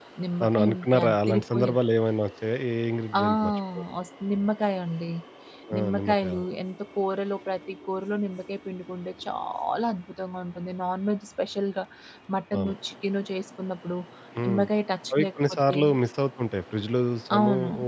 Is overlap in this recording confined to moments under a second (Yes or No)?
No